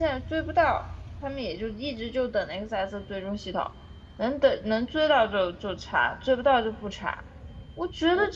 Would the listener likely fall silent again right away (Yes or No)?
Yes